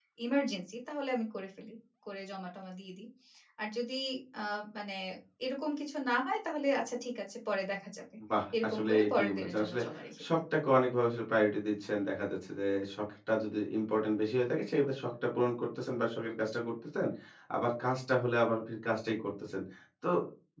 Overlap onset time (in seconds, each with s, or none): 8.6 s